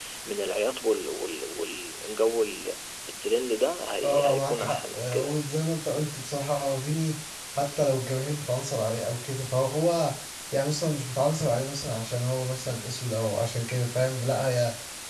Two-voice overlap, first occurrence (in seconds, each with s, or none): 4.0 s